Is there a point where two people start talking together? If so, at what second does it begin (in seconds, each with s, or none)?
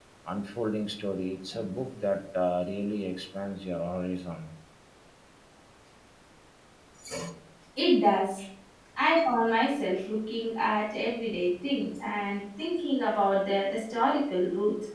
none